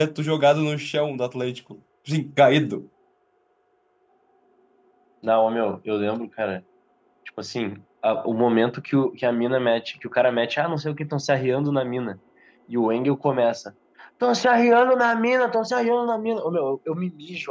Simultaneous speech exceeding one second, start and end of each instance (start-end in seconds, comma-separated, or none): none